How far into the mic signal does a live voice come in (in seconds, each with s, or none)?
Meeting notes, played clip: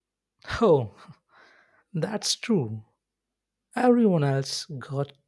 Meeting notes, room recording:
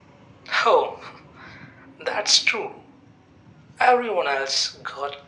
none